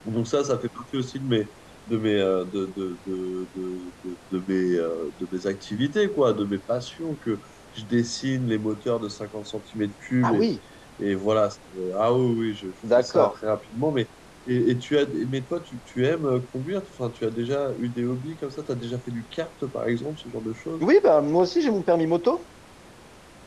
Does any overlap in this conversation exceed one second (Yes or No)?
No